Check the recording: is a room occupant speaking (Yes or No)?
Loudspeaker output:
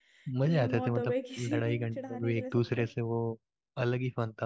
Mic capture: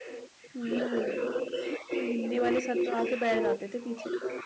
Yes